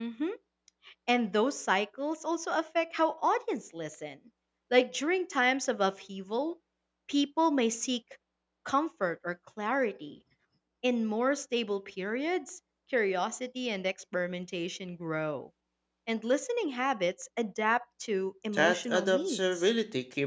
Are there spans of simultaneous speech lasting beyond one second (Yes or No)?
Yes